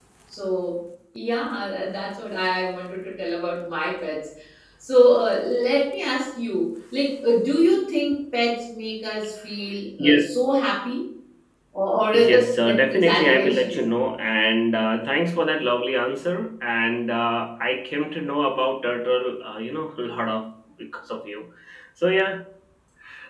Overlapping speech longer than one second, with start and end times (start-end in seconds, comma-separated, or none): 12.1-13.8